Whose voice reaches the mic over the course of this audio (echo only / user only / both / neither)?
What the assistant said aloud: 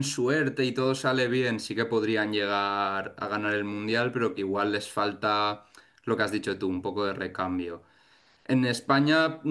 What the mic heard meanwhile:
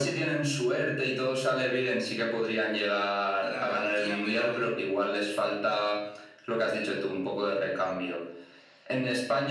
both